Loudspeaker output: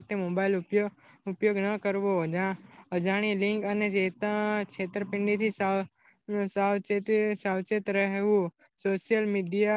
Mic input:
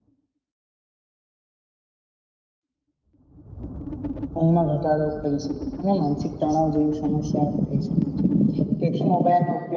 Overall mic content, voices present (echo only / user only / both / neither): user only